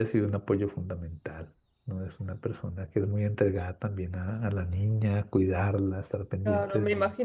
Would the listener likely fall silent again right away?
No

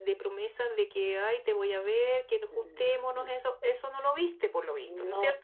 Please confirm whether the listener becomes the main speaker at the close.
Yes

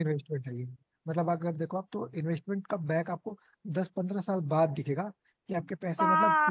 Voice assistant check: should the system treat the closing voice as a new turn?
Yes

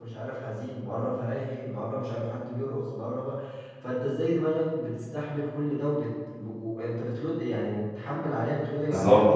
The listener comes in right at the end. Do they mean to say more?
Yes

